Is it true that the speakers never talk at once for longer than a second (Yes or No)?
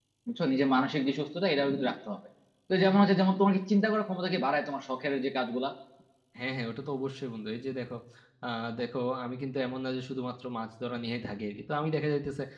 Yes